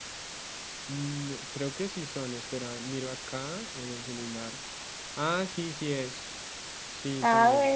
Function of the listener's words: taking over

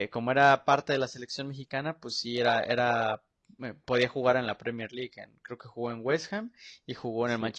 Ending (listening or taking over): taking over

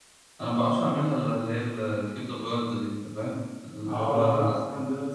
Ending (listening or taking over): taking over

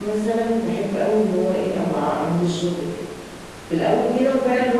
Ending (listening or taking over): listening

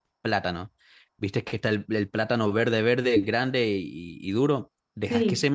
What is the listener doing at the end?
listening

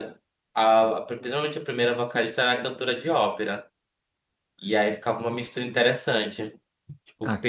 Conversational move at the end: listening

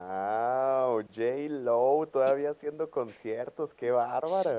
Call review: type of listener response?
taking over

